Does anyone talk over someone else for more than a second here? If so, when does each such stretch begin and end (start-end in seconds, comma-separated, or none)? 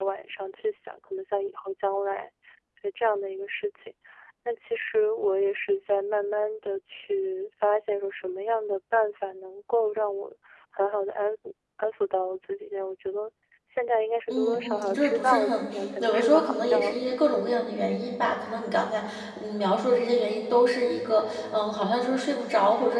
14.3-17.6